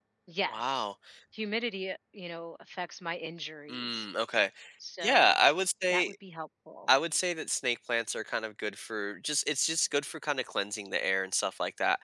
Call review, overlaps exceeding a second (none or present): none